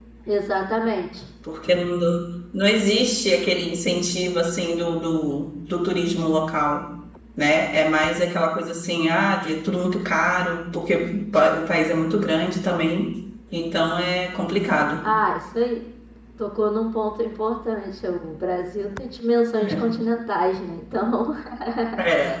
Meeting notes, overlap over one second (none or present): none